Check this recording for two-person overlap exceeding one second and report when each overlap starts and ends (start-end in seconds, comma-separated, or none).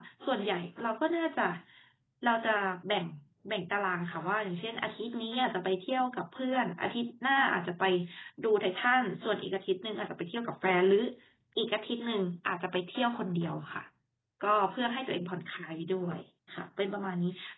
none